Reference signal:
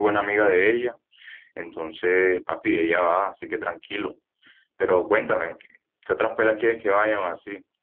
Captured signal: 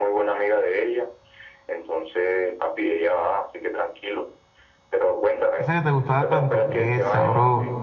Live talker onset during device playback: 5.5 s

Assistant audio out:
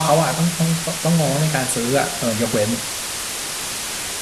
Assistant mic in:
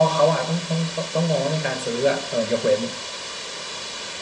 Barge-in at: none

